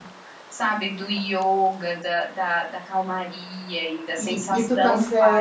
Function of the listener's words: taking over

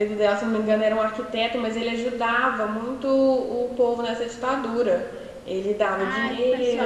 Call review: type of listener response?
taking over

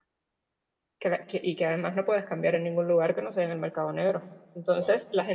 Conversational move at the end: listening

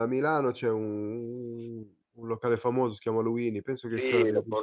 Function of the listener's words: taking over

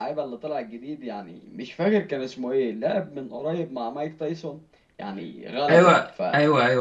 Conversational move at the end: taking over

